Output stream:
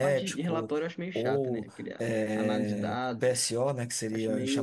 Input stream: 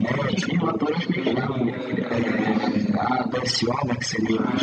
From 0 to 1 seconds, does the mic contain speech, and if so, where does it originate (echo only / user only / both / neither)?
both